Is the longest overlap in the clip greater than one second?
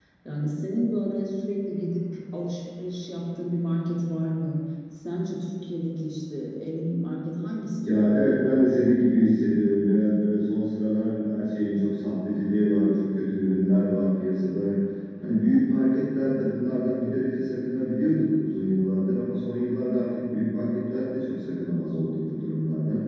No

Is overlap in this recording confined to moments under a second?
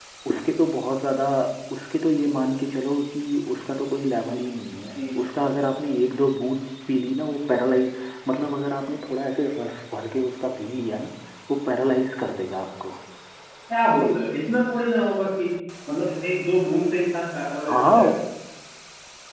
Yes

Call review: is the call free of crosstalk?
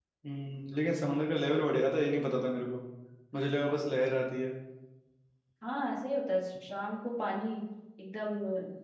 Yes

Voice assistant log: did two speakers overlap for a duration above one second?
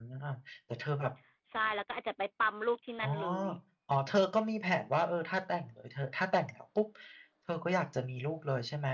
No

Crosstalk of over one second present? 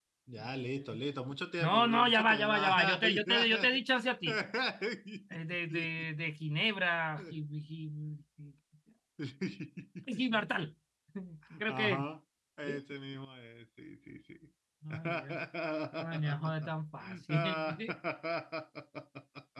Yes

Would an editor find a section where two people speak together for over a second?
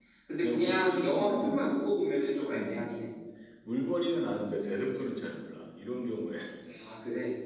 Yes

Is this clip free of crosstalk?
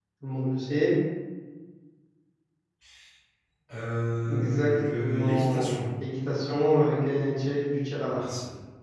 No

